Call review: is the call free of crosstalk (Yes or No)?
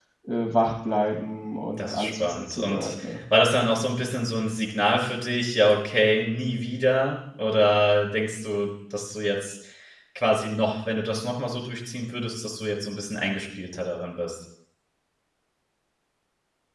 No